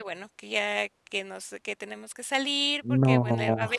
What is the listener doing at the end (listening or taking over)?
listening